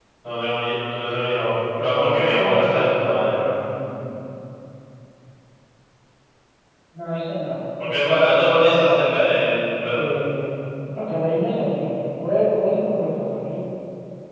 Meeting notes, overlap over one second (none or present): present